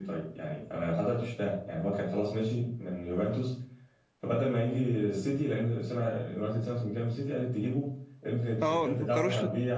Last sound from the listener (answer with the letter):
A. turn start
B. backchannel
A